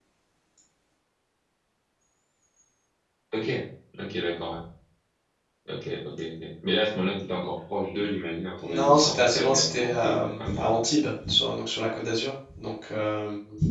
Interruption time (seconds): 8.6 s

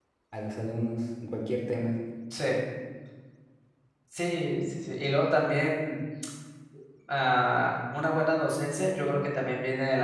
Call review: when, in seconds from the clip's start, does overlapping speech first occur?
none

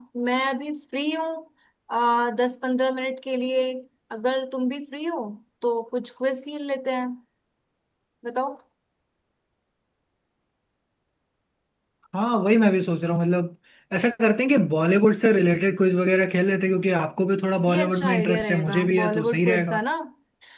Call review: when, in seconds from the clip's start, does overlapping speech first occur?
17.7 s

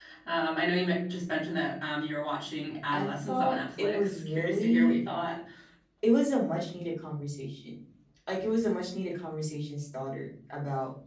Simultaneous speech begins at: 2.9 s

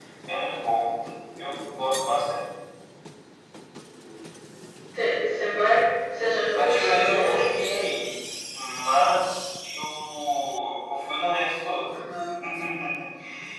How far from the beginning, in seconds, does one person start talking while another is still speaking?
6.6 s

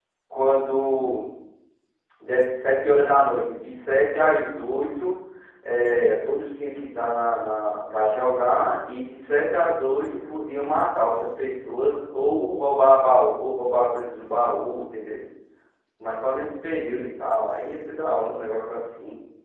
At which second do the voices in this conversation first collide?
none

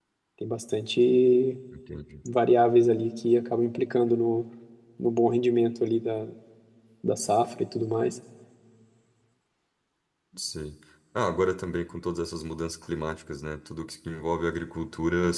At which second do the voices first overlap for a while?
none

